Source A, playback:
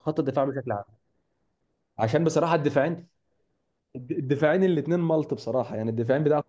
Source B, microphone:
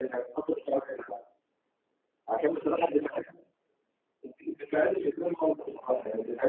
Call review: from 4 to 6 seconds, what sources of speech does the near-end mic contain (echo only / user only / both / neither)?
echo only